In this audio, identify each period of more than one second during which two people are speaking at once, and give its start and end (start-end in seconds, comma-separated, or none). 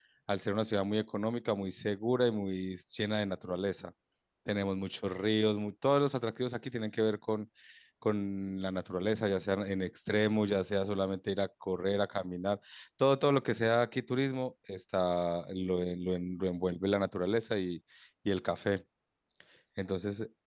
none